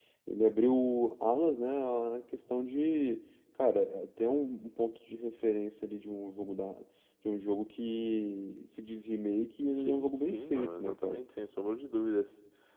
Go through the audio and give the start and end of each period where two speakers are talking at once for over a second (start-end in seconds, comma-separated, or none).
9.7-11.2